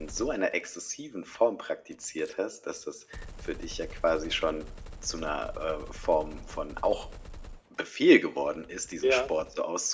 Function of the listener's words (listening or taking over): listening